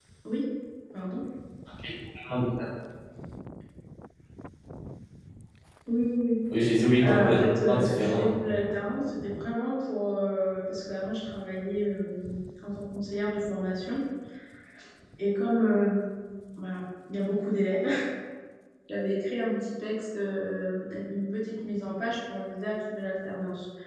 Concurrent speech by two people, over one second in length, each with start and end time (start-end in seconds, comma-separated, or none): 7.0-8.3